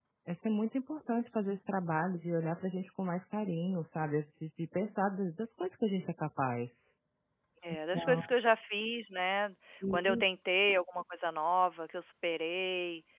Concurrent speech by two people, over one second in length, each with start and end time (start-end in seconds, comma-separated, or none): none